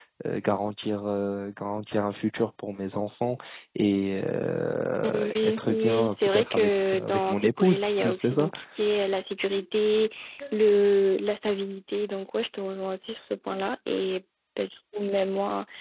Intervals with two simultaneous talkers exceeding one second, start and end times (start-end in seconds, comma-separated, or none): 5.0-8.5